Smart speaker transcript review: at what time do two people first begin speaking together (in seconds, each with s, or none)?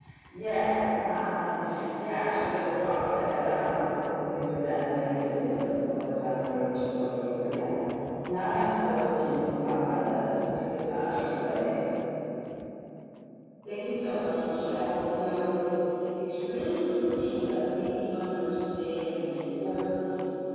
none